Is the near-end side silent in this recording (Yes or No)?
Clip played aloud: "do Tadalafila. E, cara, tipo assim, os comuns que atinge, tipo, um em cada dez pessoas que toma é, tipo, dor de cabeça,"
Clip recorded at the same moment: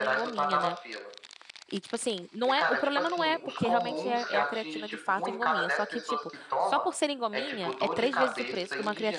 No